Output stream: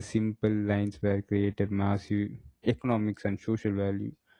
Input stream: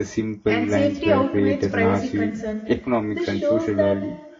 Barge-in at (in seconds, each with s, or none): 0.5 s